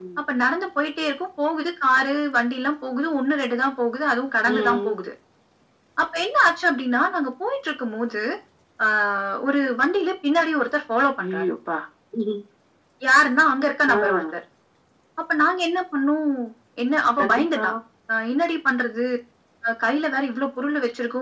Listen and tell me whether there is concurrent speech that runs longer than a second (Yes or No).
No